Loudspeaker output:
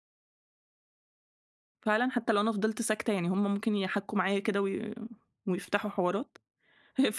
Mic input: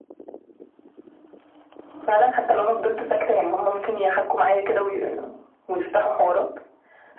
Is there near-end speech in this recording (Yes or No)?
No